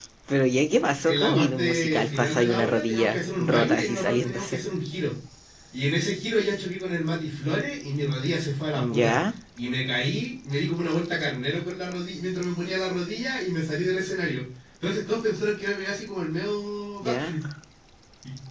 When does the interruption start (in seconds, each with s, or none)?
1.0 s